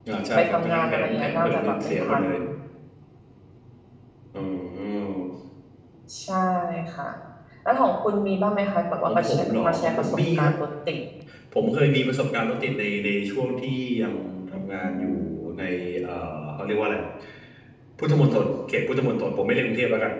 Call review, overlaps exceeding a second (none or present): present